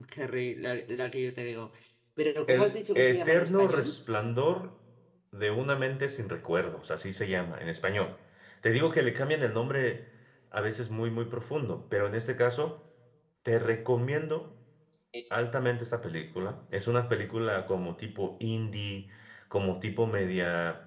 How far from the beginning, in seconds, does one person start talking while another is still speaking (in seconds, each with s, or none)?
2.5 s